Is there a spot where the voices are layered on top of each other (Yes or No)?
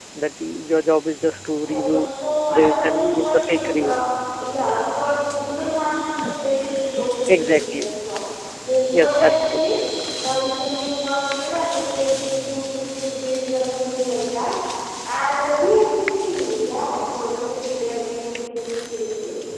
Yes